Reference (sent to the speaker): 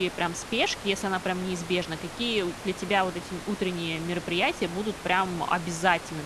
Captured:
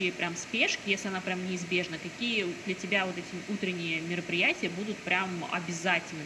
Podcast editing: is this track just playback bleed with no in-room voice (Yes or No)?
Yes